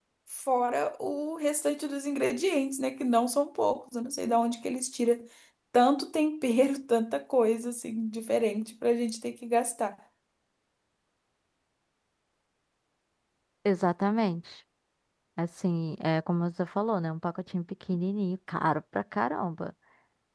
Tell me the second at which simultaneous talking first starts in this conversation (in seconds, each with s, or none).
none